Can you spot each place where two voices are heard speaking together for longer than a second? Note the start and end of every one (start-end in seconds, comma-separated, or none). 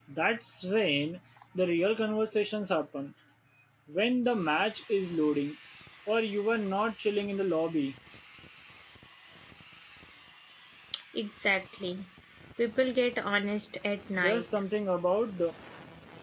none